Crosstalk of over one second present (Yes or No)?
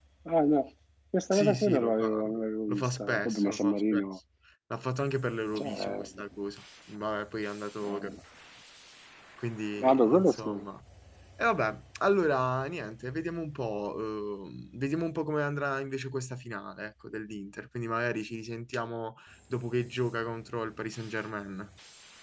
Yes